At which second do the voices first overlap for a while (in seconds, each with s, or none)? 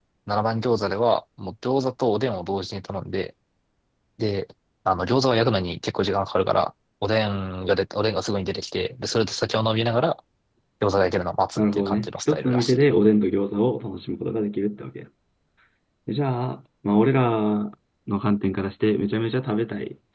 11.6 s